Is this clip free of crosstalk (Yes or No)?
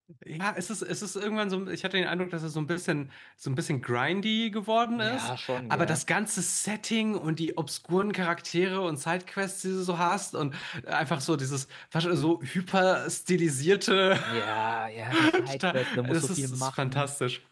No